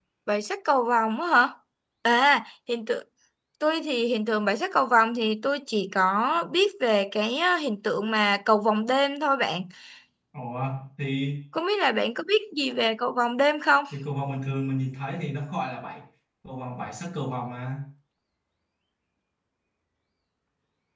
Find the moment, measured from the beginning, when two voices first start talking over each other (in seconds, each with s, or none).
none